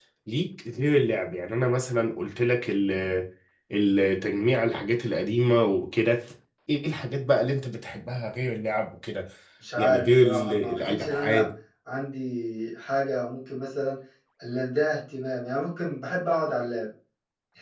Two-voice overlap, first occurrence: 9.8 s

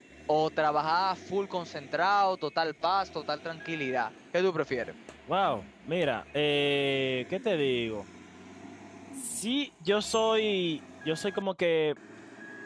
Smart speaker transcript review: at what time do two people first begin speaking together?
none

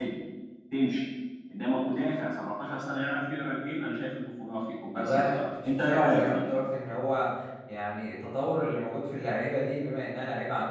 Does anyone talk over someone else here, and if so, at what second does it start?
4.9 s

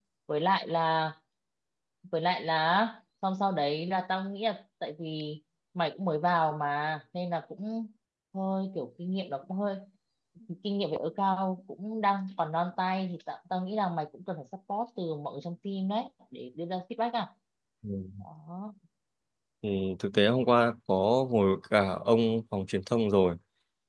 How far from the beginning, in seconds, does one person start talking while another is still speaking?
none

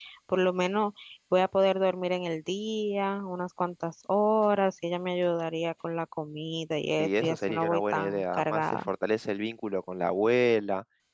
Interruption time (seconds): 7.0 s

